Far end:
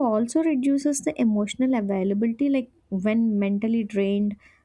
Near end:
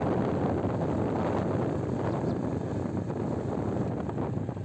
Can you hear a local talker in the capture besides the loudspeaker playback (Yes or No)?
No